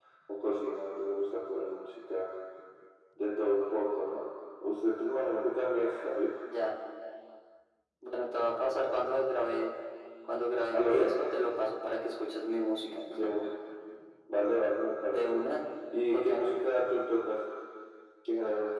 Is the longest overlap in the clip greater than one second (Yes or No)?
No